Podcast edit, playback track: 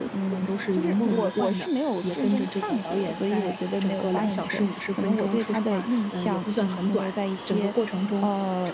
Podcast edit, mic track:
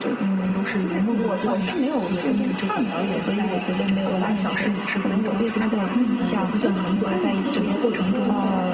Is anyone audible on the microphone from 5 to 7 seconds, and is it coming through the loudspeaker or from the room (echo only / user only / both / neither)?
both